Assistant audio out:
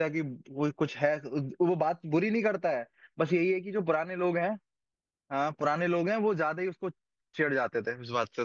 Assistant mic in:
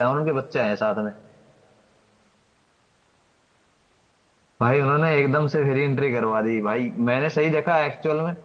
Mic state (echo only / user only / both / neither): user only